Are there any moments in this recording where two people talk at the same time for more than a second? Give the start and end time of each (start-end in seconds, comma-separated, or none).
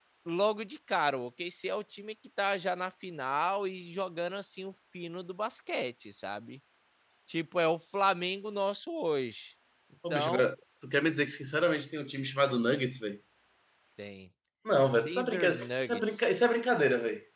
14.8-16.4